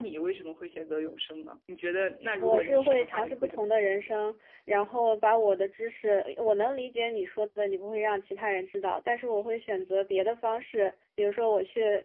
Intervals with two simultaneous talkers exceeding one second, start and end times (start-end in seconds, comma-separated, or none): 2.4-3.9